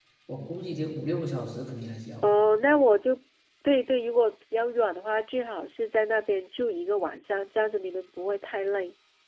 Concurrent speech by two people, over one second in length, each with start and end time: none

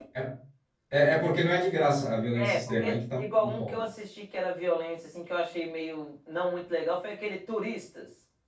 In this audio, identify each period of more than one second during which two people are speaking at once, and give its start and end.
2.4-3.8

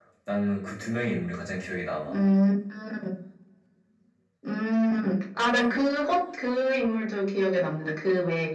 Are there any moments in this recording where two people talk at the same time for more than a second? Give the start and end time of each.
none

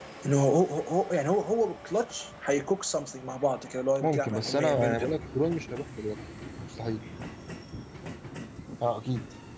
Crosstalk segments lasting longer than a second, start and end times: 4.0-5.2

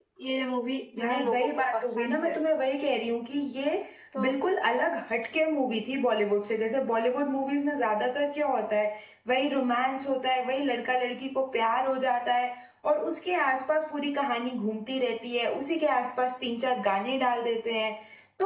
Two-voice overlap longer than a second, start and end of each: 1.0-2.4

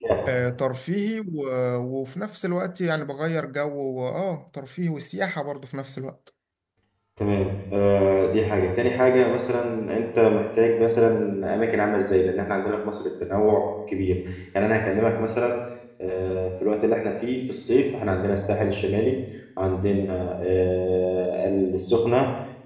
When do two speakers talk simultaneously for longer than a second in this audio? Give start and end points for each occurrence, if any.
none

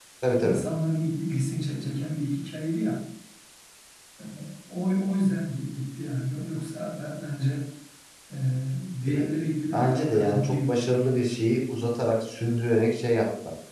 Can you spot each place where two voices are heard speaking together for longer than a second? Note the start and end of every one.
9.1-11.2

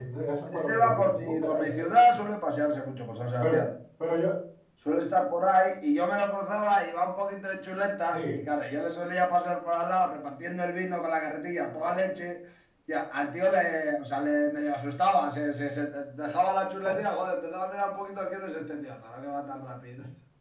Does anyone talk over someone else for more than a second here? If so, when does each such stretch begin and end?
0.6-1.9

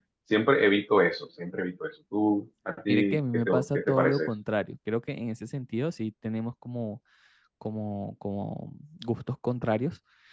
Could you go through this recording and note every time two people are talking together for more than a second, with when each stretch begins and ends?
2.9-4.3

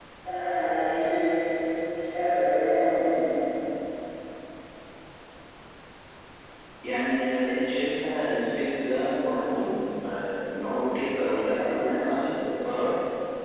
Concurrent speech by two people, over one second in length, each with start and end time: none

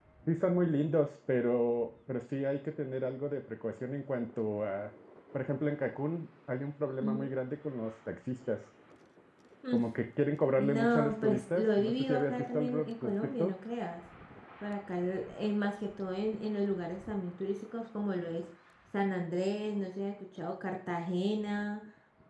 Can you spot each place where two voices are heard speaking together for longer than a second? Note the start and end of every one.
10.6-13.6

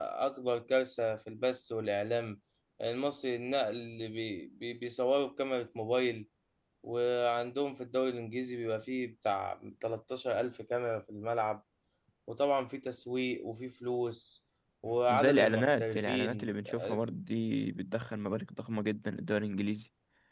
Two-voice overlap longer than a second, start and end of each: 15.1-17.0

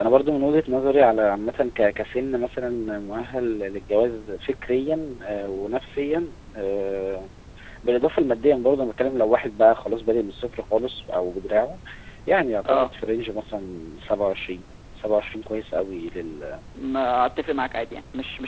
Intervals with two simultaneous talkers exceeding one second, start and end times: none

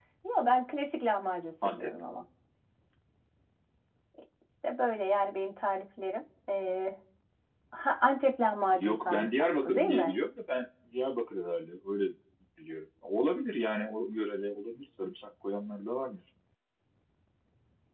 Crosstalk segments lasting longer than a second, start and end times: 8.7-10.2

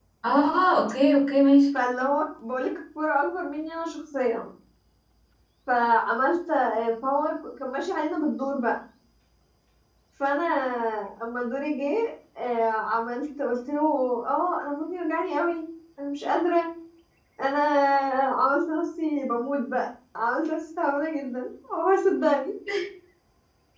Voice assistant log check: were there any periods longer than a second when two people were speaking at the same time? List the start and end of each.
none

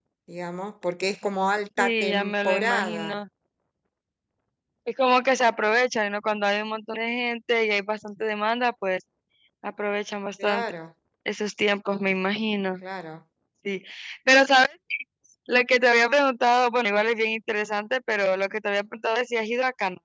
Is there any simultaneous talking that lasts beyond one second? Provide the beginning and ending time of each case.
1.8-3.2

